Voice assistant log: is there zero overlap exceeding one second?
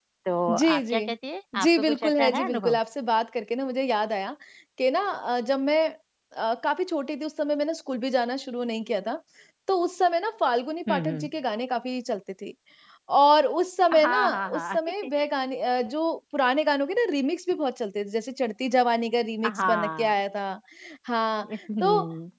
No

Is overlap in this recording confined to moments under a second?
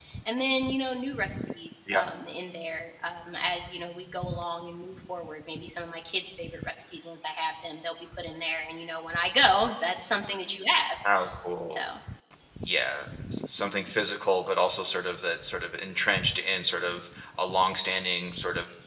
Yes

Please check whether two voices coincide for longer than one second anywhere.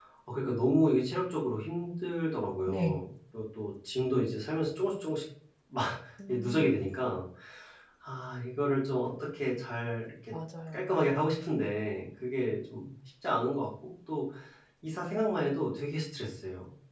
No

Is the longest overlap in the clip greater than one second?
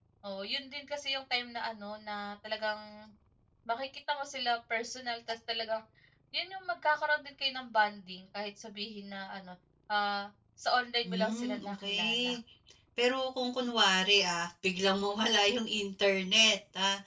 Yes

